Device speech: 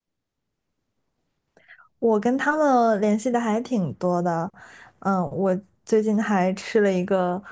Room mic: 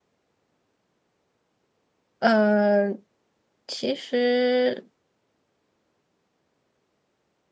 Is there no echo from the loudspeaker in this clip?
Yes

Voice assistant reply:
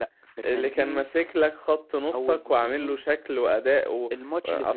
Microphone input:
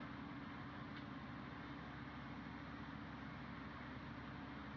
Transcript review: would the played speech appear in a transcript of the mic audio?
No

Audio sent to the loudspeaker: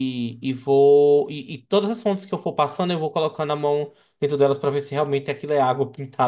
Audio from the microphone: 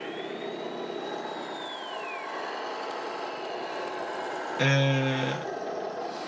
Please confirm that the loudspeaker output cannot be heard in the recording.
Yes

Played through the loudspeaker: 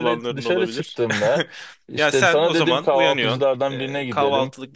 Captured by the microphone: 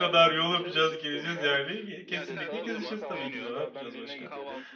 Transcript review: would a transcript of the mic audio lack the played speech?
No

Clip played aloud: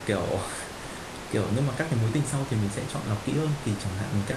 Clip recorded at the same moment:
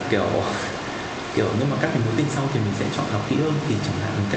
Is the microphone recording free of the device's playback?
No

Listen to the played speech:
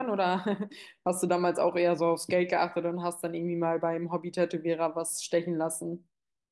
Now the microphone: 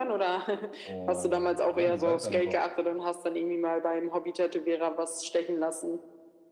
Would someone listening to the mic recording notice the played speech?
Yes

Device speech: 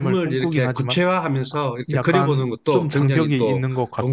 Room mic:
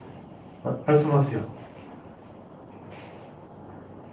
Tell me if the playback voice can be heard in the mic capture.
No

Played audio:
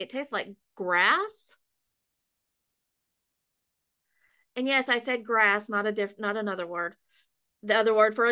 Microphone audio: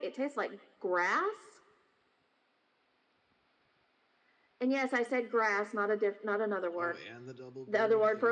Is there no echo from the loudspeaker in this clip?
No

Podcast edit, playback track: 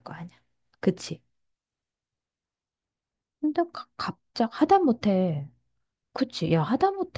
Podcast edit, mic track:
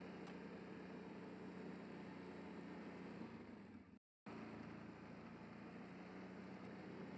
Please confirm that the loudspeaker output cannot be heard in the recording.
Yes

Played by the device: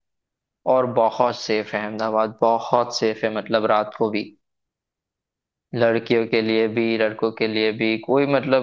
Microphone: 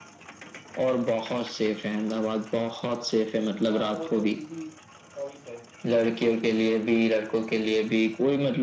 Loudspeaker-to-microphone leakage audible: Yes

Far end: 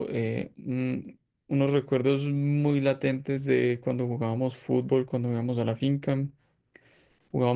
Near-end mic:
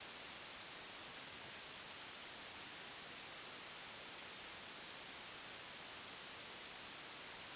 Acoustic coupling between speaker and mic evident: No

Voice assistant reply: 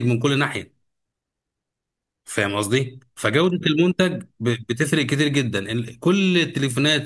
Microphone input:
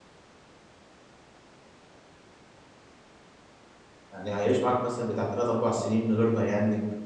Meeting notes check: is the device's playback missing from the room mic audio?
Yes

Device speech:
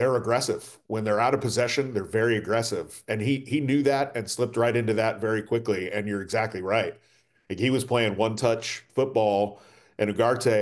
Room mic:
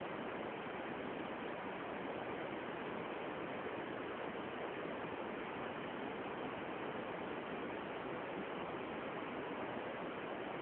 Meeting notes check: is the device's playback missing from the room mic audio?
Yes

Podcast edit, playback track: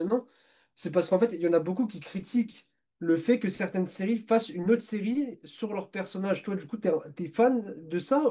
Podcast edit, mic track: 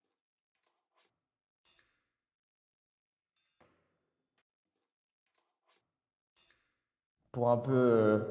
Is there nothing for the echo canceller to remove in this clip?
Yes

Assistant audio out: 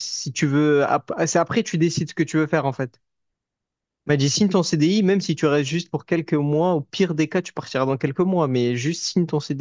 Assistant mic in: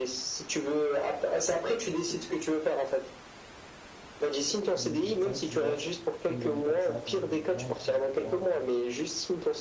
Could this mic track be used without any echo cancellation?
No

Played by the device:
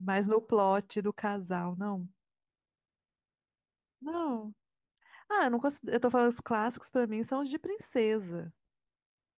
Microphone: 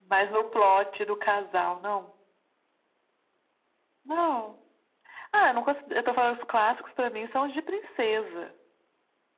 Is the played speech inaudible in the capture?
No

